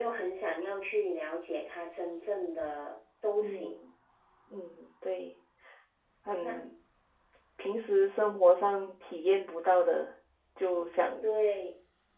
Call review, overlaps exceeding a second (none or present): none